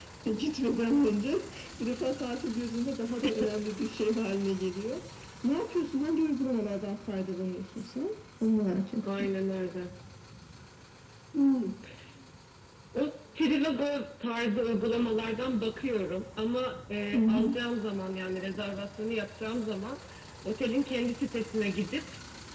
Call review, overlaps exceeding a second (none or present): none